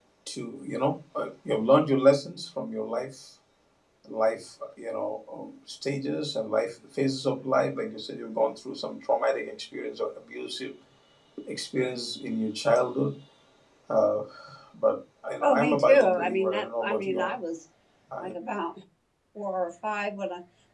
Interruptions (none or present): present